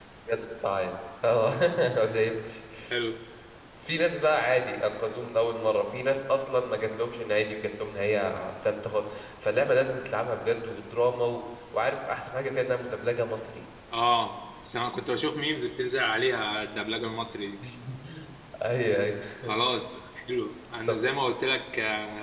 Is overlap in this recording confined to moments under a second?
Yes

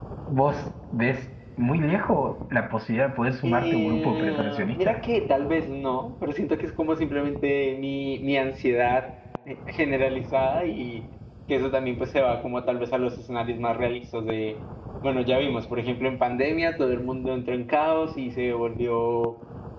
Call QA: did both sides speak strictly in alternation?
No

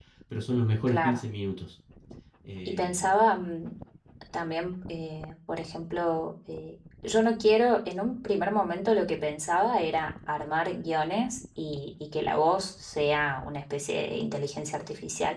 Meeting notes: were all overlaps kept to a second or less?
Yes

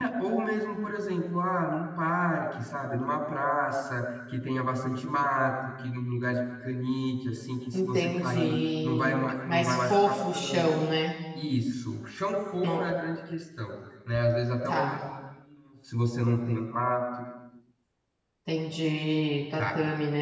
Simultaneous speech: Yes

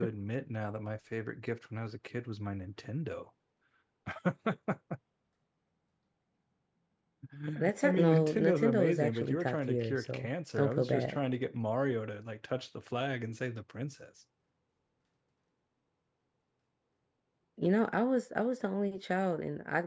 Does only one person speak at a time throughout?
No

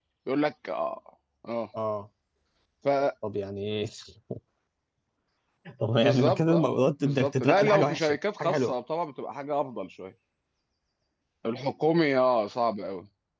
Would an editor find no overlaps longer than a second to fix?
No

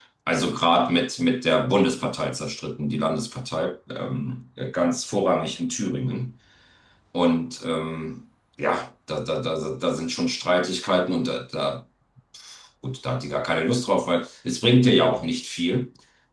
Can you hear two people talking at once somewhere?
No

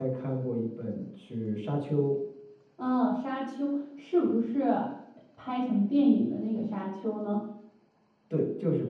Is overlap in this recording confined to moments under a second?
Yes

